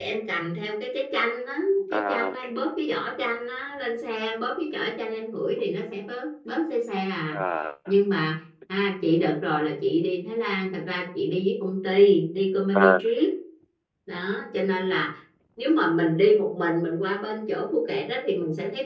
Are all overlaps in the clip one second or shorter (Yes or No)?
Yes